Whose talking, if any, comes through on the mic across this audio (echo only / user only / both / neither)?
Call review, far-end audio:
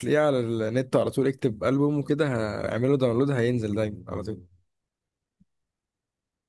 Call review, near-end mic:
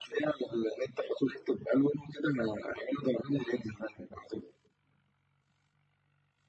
echo only